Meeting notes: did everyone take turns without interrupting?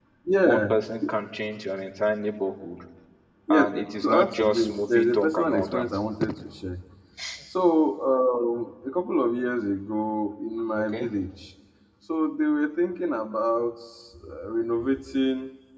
No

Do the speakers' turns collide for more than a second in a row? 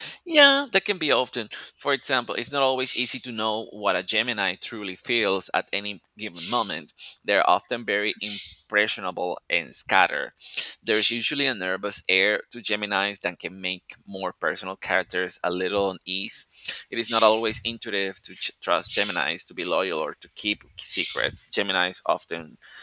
No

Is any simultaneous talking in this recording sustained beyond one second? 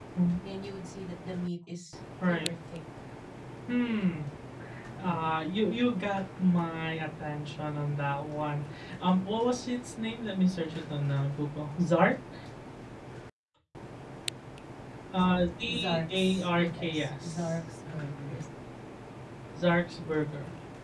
Yes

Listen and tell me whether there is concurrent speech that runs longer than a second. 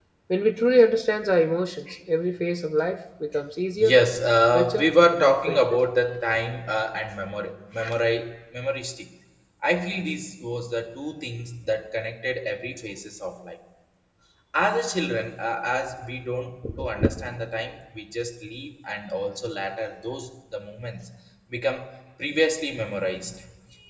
Yes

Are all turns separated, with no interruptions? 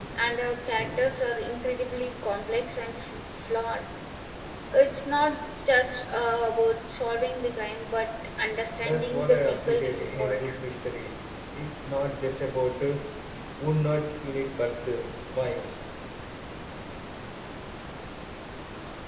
No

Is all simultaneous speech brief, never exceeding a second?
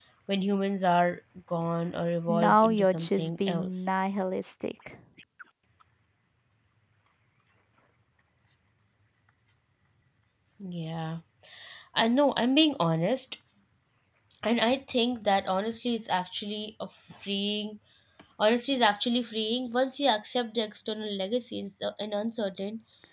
No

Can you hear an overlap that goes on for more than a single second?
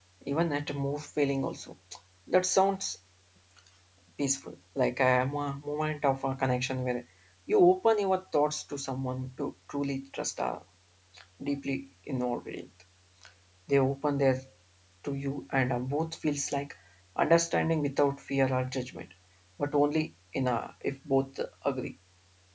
No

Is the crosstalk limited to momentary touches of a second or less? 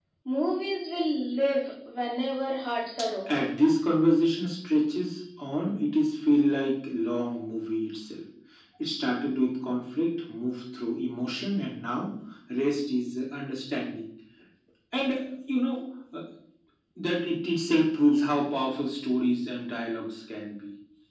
Yes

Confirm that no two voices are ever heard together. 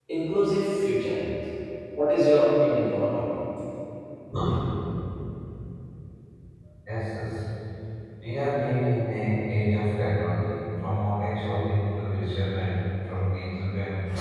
Yes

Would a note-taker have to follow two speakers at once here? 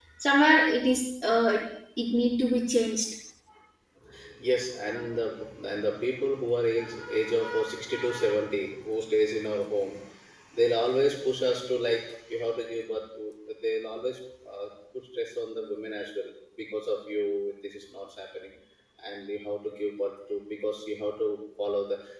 No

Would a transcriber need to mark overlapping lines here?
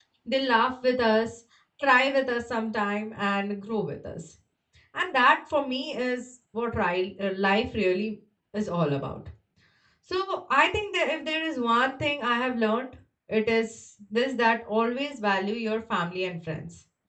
No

